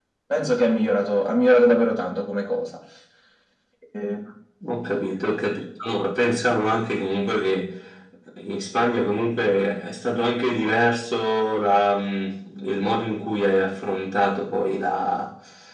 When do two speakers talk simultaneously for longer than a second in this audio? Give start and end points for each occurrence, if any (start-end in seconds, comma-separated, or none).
none